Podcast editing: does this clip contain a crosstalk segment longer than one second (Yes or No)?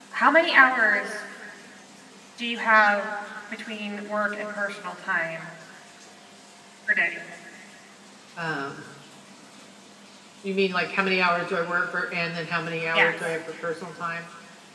No